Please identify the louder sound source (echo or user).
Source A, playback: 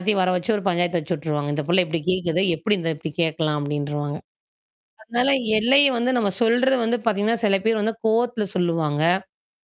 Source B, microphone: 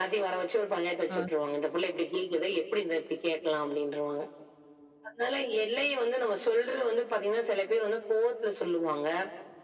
echo